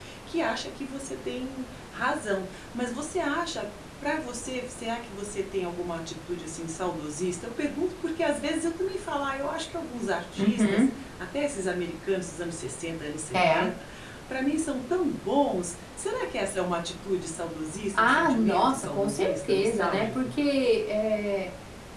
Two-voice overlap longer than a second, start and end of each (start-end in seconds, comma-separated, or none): 17.9-20.3